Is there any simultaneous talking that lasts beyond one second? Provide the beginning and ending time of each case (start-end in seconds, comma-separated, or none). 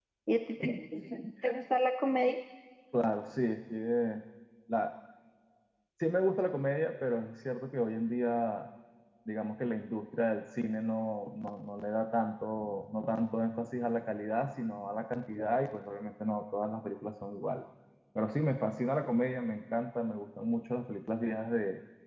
none